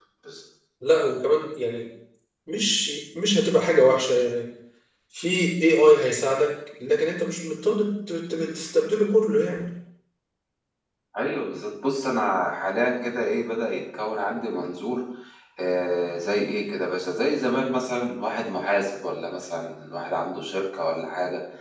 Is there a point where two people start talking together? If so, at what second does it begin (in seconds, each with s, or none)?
none